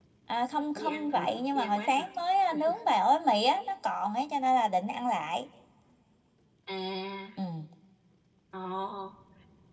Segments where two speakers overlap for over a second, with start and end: 0.8-2.1

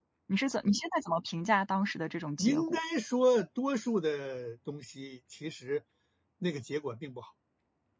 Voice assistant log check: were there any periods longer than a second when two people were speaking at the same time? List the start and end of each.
none

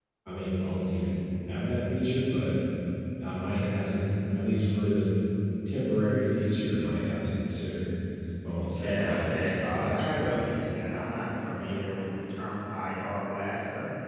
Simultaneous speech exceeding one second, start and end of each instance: 8.8-10.3

